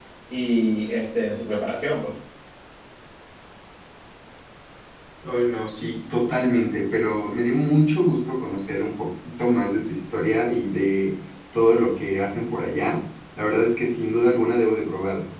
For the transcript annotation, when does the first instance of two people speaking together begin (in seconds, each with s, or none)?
none